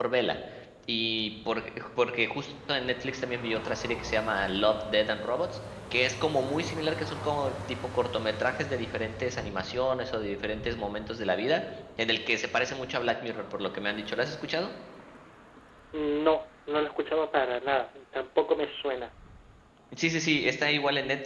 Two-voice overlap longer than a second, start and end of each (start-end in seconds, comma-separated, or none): none